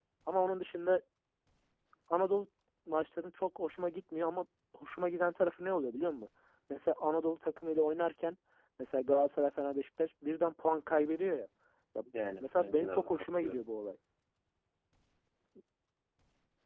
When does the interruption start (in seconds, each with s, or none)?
12.4 s